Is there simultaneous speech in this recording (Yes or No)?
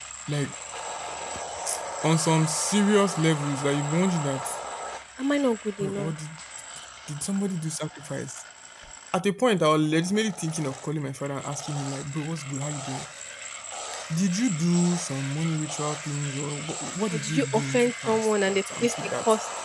Yes